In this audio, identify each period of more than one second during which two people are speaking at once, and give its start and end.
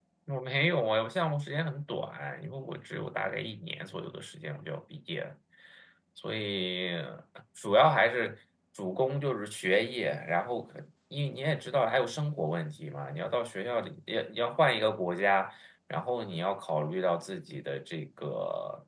none

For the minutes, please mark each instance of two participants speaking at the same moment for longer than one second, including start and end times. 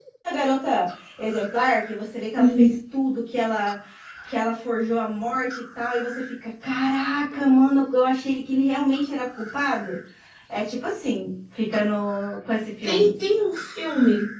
none

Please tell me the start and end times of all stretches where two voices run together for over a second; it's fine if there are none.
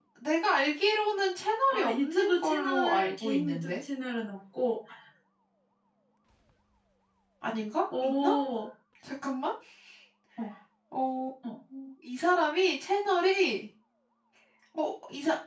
1.7-3.8

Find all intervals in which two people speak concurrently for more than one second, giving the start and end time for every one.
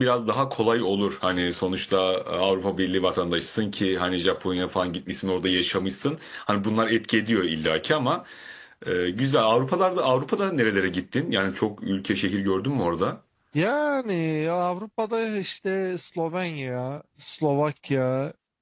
none

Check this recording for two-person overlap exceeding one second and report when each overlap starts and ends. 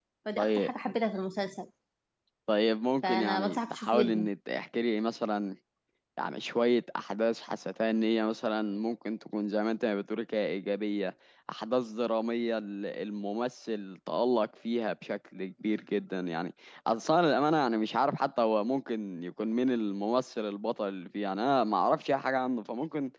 3.0-4.3

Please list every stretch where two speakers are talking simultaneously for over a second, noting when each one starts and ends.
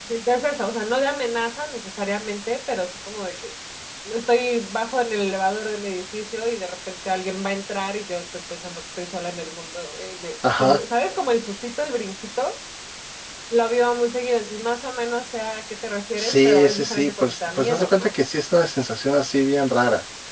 16.2-18.1

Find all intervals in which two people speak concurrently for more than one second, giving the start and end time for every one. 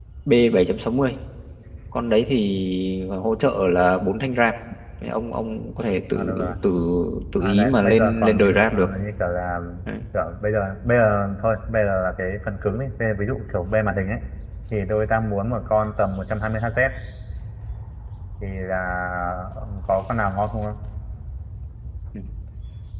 7.4-8.9

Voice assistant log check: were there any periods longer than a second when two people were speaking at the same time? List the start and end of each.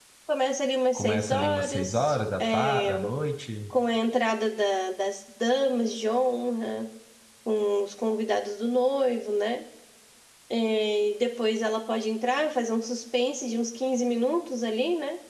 1.0-2.9

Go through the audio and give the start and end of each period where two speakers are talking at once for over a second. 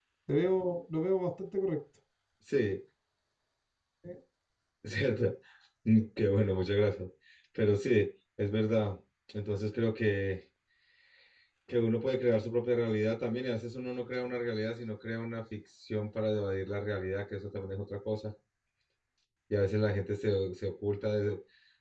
none

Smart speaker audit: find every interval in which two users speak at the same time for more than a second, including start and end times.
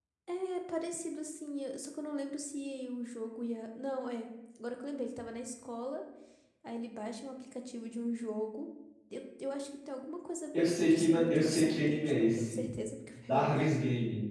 10.5-12.6

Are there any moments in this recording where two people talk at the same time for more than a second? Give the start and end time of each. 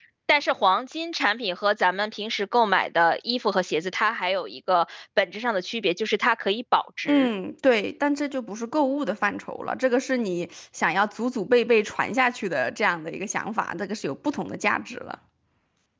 none

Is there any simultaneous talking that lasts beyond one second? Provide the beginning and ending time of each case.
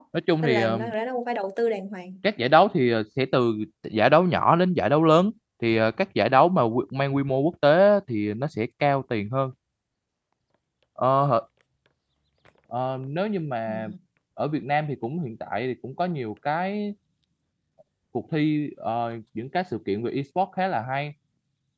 none

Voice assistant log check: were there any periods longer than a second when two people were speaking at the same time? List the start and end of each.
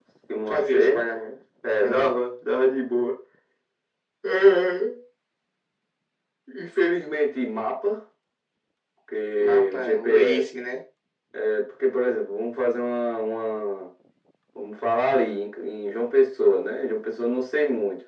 9.4-10.6

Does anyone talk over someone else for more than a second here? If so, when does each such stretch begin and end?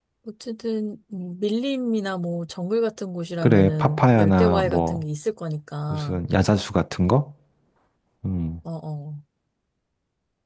3.4-5.0

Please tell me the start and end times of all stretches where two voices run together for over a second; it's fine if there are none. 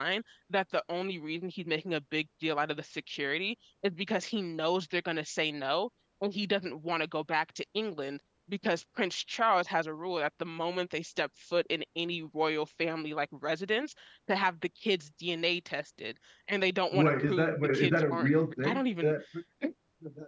16.9-19.1

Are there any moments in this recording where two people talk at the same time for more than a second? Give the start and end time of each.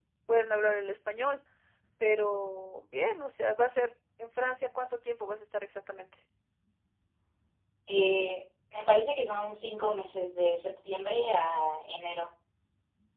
none

